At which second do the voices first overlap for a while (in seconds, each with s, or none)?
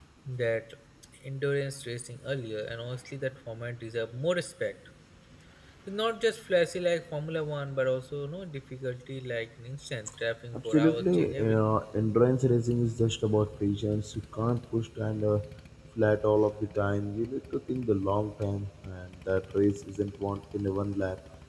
10.5 s